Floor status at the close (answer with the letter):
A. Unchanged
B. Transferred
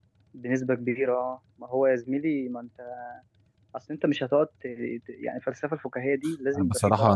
B